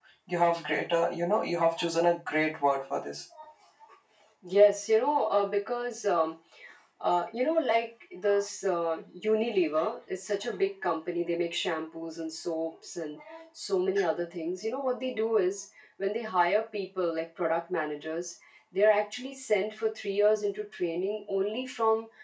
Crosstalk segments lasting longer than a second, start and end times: none

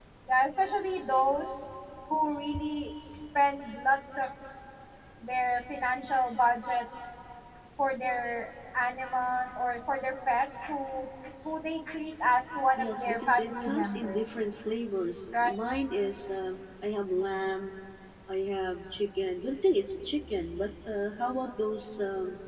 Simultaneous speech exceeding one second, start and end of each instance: 12.8-14.2

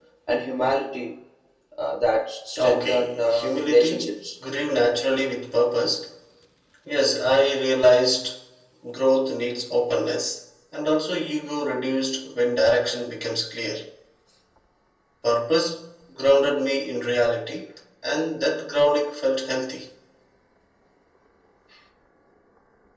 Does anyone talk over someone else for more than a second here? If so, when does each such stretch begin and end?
2.6-4.2

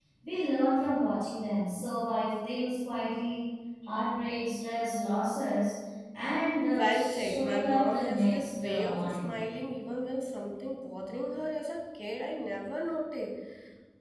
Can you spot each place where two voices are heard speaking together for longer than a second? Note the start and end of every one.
6.8-9.3

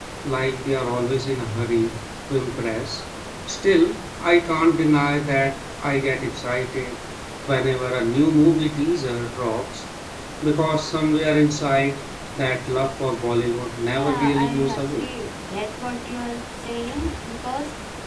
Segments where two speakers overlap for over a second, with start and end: 13.8-15.1

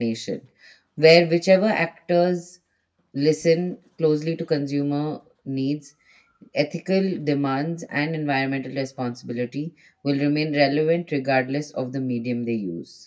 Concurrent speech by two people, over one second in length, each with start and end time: none

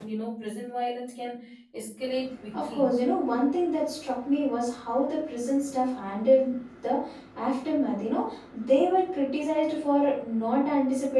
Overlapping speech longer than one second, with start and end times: none

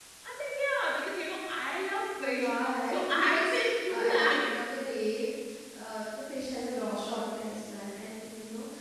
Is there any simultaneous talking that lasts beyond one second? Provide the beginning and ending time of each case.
2.2-4.4

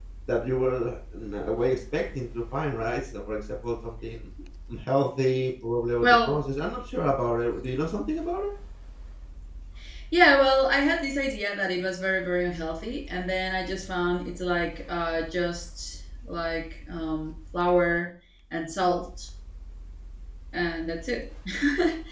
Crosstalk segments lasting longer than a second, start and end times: none

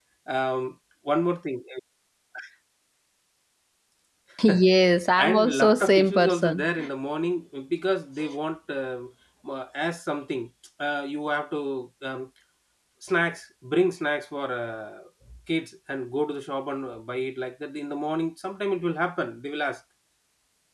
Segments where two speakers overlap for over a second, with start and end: 5.2-6.7

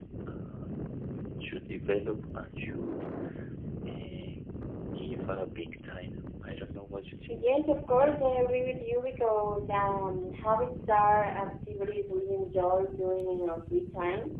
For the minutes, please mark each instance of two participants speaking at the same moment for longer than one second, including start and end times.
none

